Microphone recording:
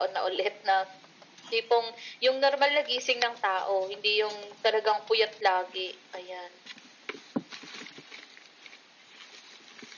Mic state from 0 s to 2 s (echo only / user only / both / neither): echo only